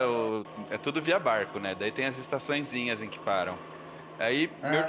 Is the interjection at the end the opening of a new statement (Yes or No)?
No